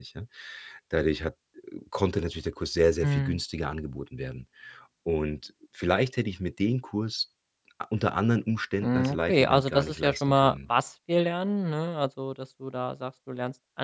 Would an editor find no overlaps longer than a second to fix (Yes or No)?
No